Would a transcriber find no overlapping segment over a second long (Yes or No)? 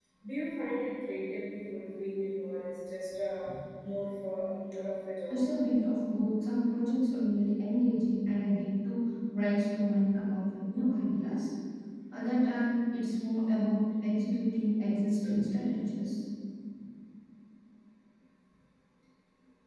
Yes